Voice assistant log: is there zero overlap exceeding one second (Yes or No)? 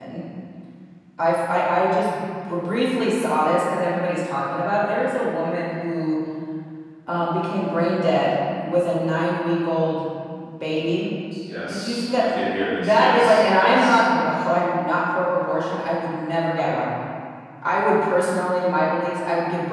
No